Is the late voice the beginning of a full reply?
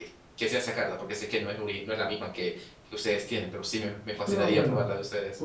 Yes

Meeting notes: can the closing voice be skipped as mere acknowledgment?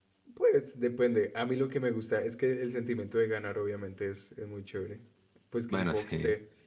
Yes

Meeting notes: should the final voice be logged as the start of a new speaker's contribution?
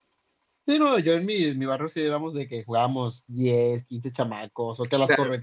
No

